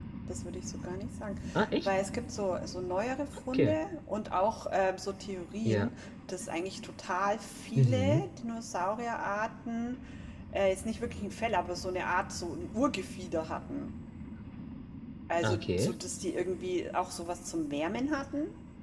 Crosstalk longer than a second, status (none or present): none